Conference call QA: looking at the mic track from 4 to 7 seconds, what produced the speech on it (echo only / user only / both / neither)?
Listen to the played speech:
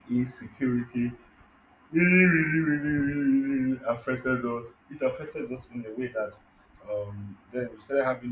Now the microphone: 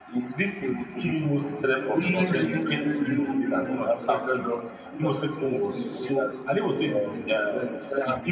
both